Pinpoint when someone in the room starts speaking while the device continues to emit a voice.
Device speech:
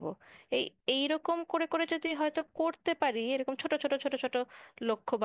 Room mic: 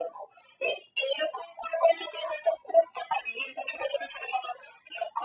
none

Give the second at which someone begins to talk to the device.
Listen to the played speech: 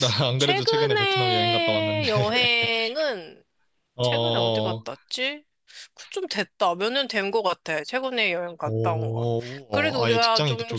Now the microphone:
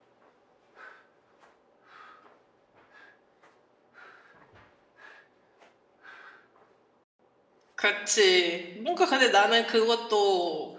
7.8 s

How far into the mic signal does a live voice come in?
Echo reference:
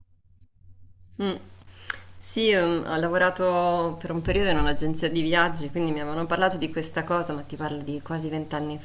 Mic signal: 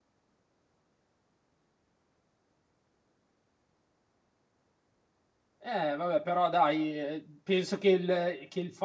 5.6 s

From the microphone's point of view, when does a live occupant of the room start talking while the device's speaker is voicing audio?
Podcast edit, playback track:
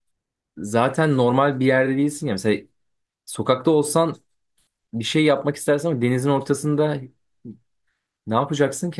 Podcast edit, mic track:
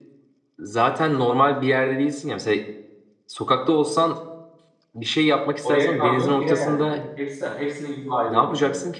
5.6 s

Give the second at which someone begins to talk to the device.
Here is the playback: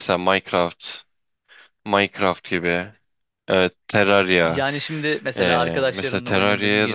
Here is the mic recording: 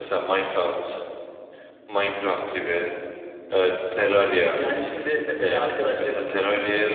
none

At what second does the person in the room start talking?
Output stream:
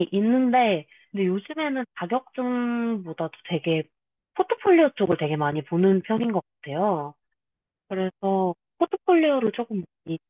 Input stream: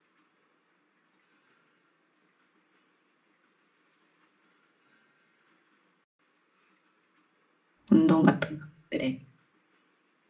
7.9 s

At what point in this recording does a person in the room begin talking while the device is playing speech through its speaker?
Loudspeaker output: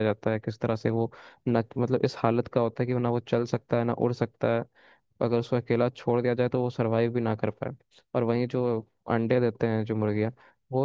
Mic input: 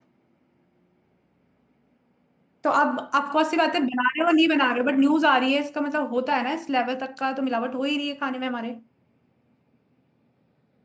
2.6 s

